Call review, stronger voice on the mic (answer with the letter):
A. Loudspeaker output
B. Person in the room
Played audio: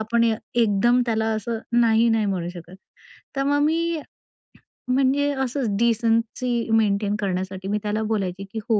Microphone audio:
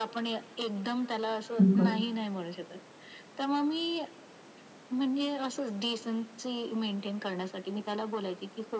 B